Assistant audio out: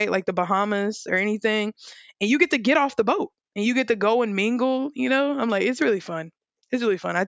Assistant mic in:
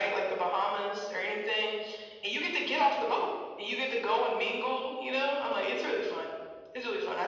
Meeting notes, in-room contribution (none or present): none